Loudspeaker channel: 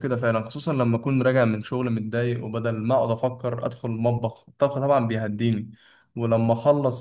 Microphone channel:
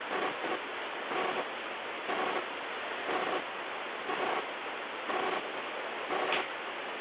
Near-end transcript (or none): none